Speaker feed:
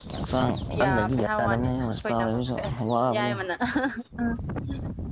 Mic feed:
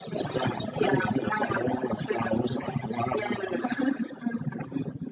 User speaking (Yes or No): No